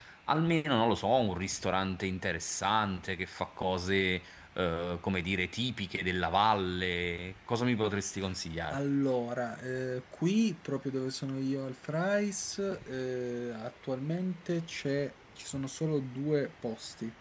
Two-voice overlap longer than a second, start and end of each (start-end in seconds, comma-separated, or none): none